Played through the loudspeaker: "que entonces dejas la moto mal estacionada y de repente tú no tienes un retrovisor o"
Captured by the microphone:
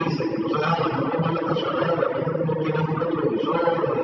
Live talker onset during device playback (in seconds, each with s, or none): none